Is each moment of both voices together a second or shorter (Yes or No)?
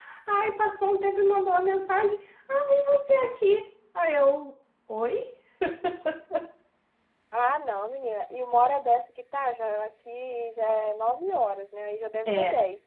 Yes